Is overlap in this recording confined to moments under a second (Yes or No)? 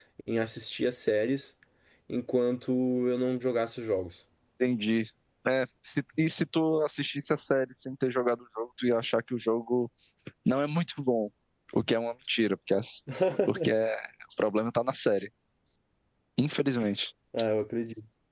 Yes